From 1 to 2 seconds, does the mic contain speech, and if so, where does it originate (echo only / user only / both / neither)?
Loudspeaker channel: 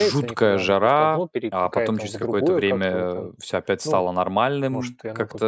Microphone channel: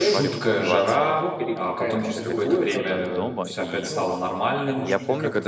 both